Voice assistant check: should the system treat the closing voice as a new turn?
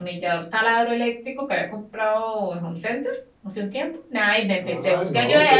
Yes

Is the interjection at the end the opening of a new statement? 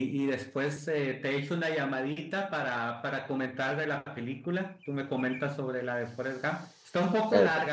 No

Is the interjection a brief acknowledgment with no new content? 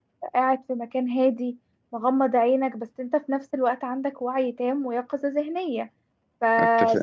Yes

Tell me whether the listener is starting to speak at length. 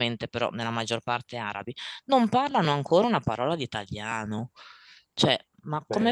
No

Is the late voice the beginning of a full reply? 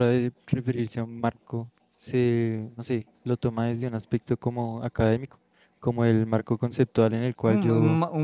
Yes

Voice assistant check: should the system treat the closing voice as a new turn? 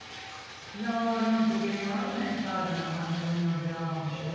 No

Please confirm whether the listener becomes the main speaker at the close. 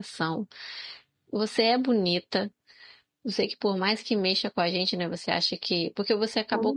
No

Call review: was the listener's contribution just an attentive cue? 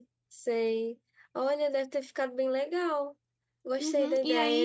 No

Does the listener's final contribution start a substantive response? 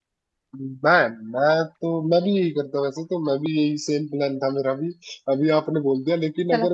No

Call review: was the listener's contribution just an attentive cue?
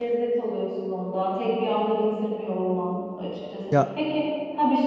Yes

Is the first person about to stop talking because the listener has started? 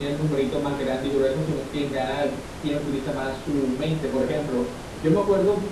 No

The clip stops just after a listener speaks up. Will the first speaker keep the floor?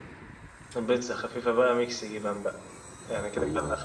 Yes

